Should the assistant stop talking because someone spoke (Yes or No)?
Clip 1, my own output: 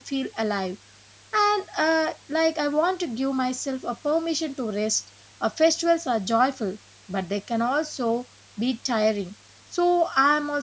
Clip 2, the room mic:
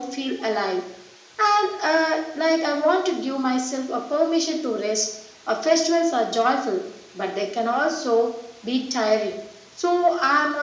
No